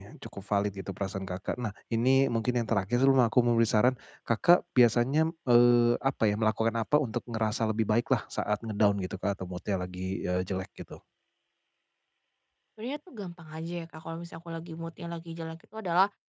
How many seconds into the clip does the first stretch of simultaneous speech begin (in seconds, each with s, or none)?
none